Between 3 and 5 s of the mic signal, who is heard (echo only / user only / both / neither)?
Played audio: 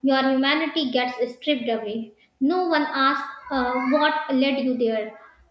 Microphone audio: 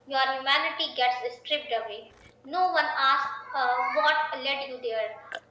echo only